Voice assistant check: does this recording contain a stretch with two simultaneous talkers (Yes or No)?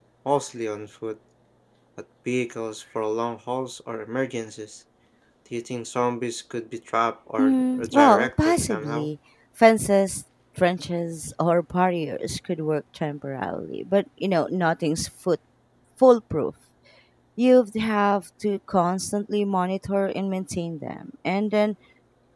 Yes